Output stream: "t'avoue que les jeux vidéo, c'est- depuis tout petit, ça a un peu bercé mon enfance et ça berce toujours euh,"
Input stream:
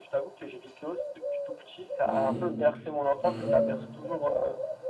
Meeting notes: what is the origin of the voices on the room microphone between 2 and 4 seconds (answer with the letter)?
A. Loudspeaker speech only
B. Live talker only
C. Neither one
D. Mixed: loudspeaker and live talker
D